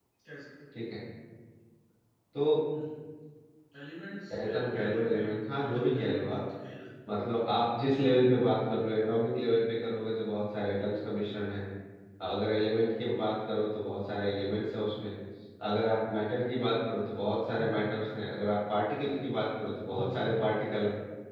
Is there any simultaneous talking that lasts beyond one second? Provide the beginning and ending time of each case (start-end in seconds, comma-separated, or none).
4.5-6.4